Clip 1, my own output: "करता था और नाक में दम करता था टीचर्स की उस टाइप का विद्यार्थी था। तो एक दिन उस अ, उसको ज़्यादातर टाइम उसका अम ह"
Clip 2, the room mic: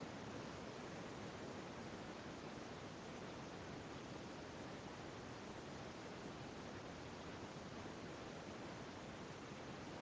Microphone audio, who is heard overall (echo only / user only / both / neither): neither